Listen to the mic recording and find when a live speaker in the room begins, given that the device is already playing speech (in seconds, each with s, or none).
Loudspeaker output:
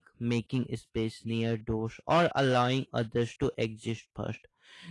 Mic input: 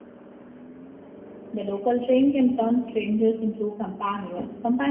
1.5 s